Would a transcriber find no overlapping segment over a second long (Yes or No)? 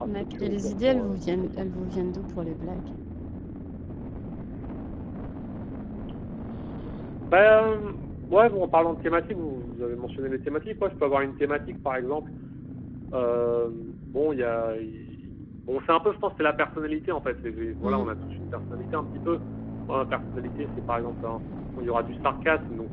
No